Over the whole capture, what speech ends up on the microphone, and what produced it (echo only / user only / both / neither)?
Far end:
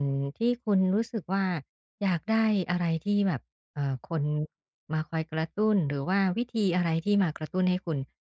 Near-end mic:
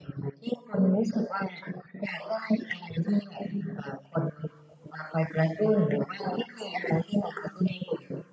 echo only